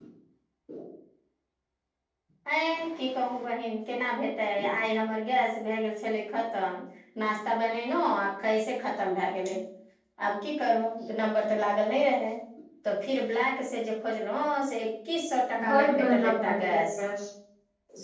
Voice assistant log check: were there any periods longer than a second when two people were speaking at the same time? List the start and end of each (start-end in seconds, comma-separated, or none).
15.7-17.0